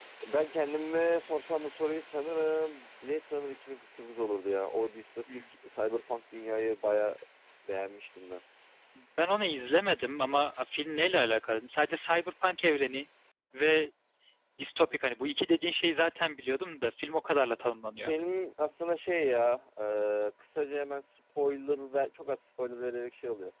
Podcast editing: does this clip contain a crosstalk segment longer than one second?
No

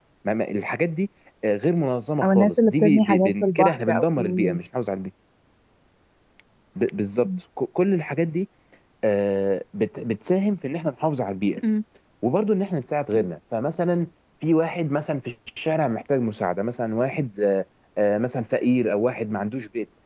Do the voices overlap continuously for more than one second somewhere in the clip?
Yes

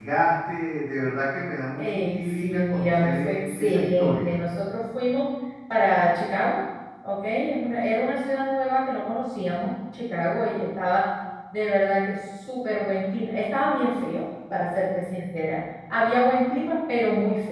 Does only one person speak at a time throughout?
No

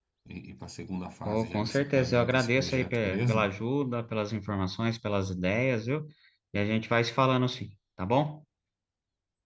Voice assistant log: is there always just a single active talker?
No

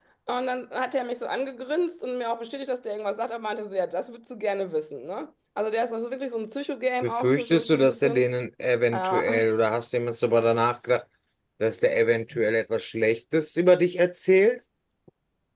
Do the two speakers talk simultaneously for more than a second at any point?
Yes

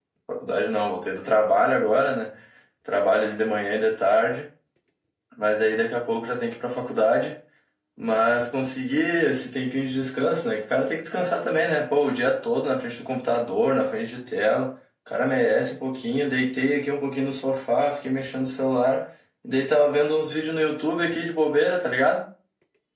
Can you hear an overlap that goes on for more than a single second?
No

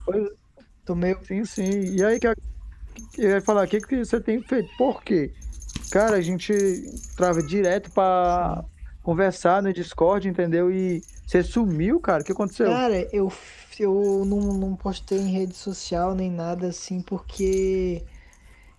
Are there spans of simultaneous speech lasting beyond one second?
No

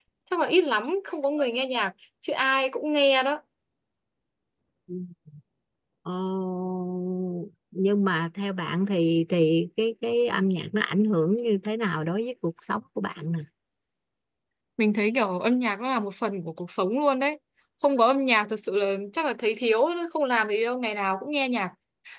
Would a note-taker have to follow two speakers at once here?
No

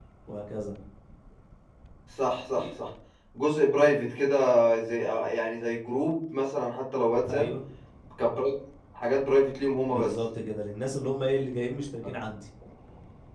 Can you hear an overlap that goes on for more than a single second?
No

